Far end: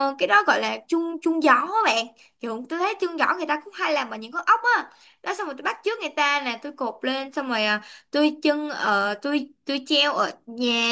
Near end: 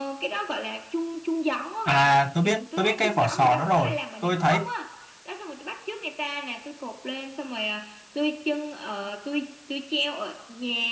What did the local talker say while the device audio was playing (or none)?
À tôi biết tôi biết cái vỏ sò đó rồi tôi thấy